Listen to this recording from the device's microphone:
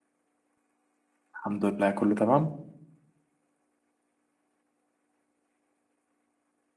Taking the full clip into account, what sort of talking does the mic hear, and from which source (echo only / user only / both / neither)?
user only